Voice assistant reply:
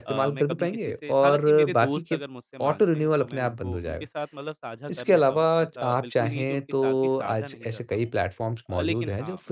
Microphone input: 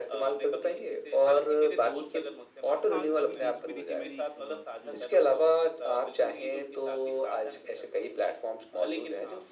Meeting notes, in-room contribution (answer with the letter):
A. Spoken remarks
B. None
A